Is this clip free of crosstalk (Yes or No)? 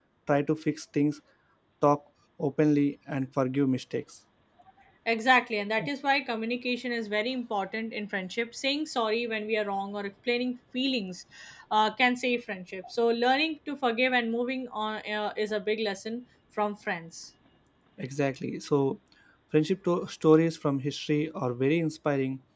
Yes